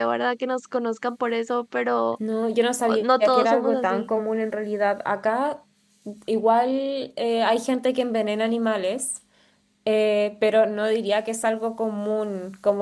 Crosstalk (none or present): present